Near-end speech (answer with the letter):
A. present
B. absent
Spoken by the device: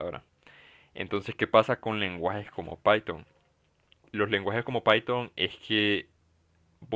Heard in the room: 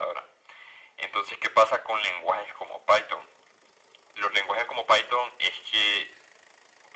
B